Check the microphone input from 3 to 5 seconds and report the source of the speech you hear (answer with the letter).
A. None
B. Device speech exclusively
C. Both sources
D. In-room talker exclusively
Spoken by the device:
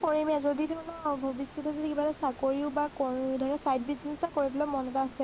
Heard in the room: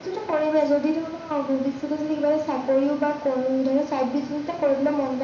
B